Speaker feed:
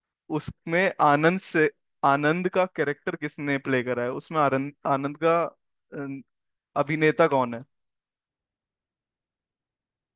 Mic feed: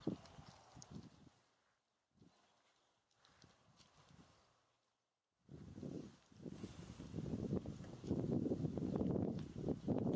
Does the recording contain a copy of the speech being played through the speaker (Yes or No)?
No